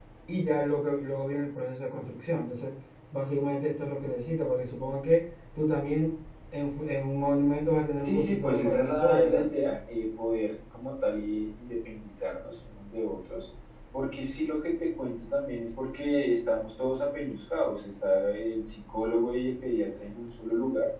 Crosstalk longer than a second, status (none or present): present